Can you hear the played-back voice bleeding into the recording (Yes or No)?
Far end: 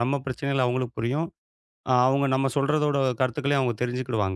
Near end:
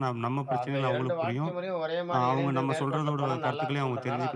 Yes